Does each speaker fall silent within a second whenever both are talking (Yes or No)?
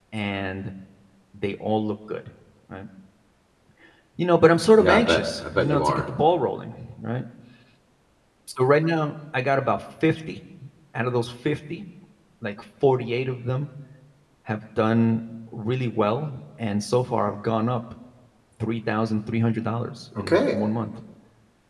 No